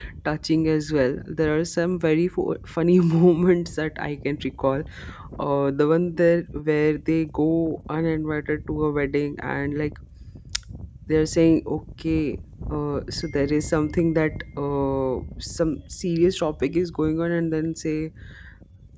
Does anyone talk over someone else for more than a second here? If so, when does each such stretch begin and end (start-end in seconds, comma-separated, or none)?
none